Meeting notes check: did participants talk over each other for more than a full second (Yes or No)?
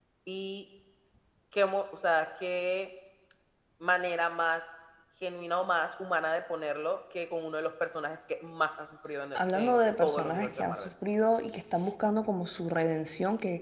Yes